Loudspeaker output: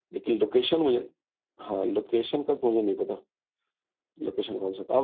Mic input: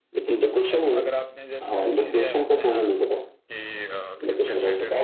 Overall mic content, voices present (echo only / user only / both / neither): both